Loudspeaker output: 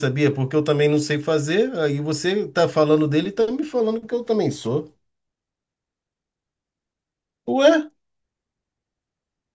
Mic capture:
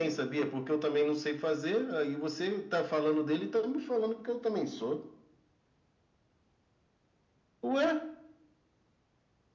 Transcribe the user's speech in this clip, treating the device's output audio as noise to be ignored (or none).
none